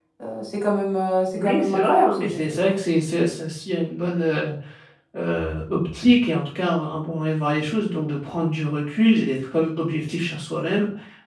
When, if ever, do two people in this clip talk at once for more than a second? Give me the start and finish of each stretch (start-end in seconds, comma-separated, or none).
1.3-2.8